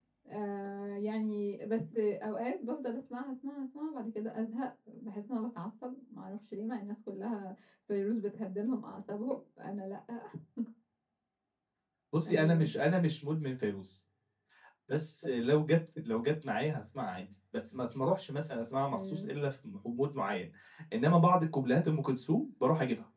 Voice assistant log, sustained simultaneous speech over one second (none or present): none